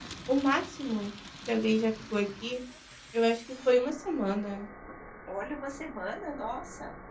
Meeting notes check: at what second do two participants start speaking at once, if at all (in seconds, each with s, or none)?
none